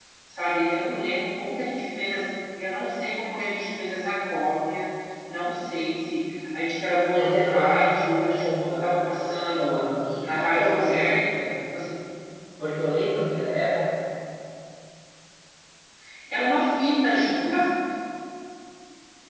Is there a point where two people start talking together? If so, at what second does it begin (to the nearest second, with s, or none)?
7 s